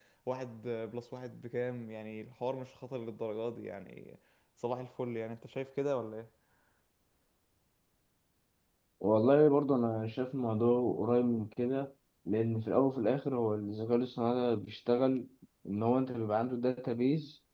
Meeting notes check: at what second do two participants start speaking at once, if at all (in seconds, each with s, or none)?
none